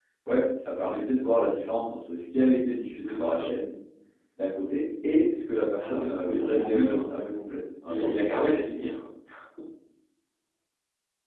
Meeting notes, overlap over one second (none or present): present